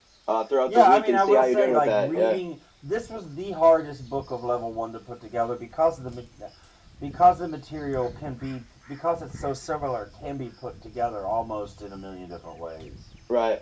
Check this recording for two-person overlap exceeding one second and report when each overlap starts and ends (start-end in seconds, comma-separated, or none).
0.7-2.4